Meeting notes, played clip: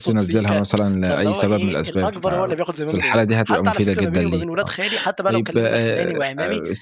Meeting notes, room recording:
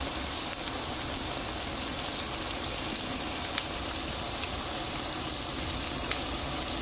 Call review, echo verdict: none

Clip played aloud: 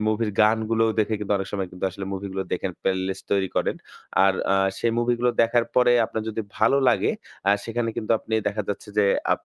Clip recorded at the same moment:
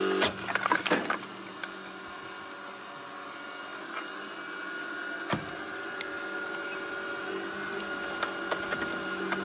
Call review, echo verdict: none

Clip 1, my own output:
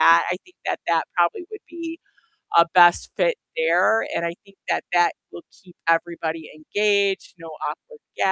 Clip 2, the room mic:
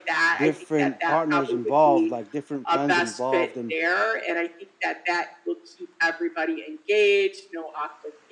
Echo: present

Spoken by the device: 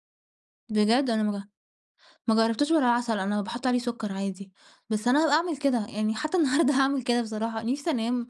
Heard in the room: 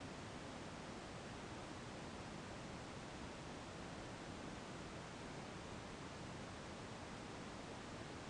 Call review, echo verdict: none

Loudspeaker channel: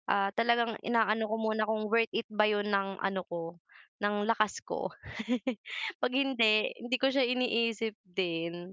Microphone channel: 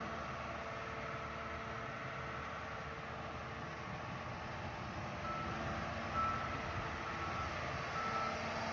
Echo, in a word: none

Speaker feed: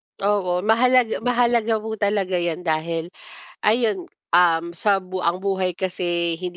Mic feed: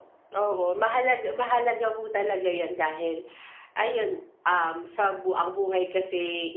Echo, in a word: present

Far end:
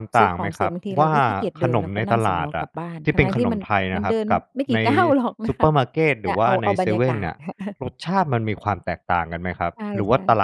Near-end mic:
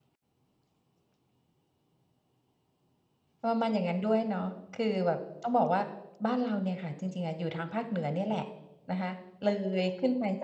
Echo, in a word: none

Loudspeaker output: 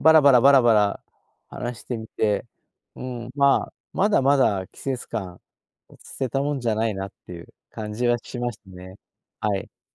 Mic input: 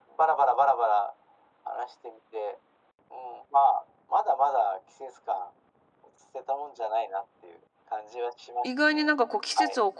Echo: present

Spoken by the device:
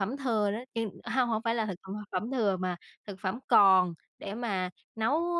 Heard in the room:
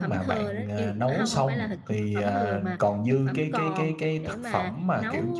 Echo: present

